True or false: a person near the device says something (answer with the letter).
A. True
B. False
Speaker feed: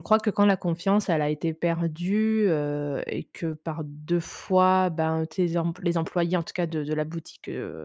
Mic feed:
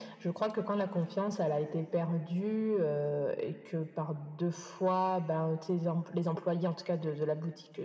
B